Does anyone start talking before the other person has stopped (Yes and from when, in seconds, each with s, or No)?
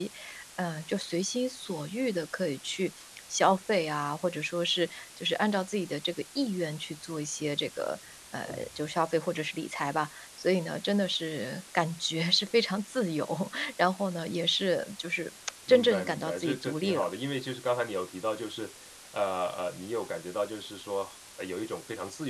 Yes, from 15.7 s